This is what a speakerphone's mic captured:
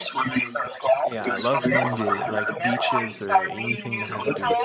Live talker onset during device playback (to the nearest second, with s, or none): 1 s